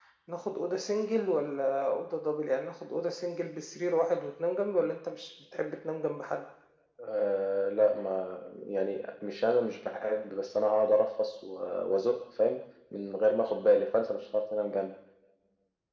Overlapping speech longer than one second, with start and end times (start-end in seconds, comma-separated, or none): none